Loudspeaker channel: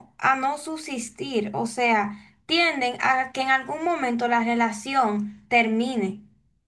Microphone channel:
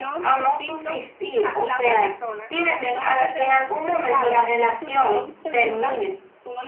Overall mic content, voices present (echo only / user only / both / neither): both